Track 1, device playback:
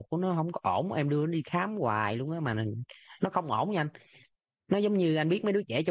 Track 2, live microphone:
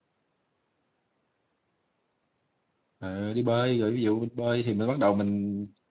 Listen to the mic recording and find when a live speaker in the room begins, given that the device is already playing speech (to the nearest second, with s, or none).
3 s